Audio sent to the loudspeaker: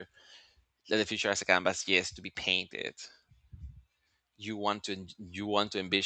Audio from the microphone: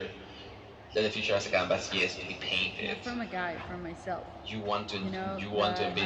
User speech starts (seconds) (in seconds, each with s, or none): 2.8 s